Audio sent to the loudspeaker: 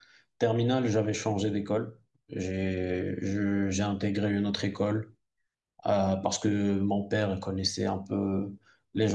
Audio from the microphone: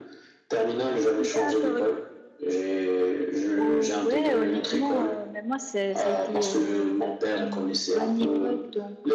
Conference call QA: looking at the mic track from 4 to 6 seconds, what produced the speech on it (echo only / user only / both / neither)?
both